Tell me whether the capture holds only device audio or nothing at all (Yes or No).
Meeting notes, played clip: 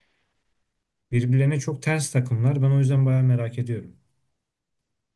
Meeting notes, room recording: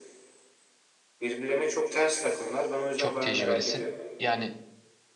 No